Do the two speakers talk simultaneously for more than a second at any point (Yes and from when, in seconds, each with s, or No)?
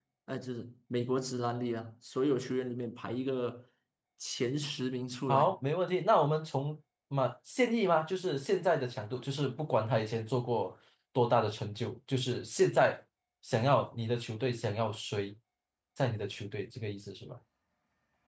No